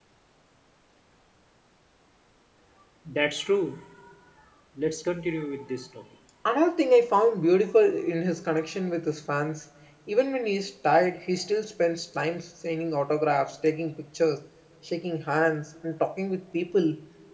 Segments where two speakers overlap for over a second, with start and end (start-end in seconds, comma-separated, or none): none